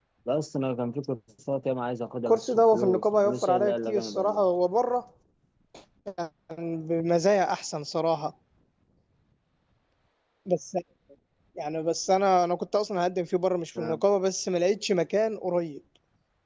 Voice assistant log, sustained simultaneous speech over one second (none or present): present